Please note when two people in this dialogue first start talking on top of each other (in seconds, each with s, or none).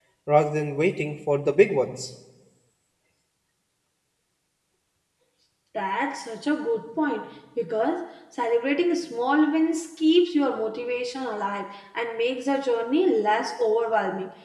none